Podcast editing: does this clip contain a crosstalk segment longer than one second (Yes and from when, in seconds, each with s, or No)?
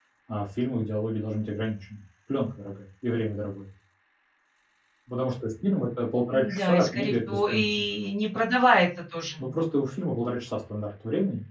Yes, from 6.3 s